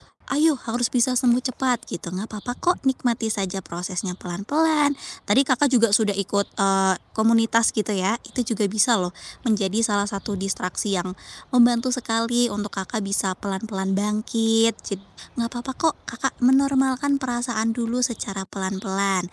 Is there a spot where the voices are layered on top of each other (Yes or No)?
No